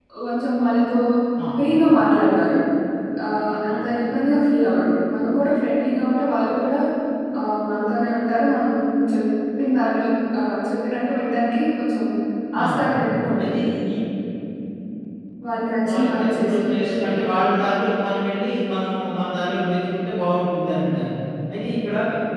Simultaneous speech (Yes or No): Yes